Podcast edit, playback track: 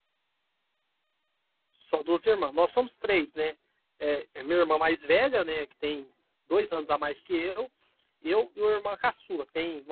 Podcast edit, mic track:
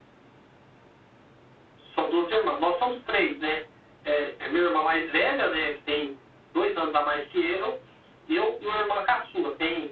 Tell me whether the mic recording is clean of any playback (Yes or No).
No